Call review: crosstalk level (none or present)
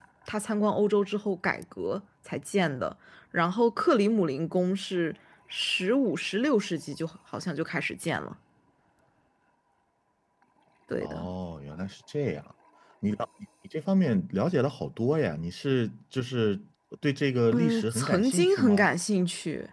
present